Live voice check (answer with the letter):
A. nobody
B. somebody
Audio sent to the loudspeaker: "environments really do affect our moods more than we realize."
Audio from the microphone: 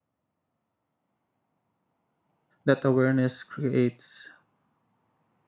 B